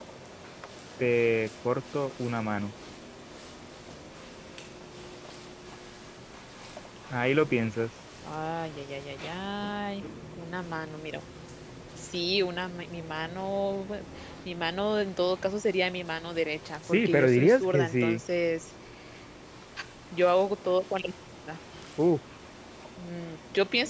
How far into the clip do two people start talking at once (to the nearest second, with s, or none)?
17 s